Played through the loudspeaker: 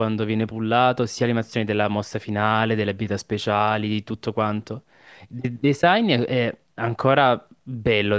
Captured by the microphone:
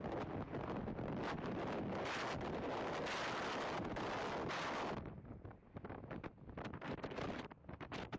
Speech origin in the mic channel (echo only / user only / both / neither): neither